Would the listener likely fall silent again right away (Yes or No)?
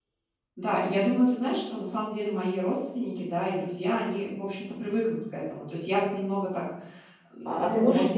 No